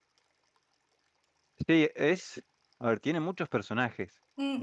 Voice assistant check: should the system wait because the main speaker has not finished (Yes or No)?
No